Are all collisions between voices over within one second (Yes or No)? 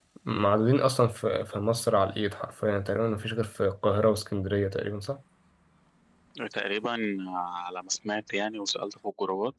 Yes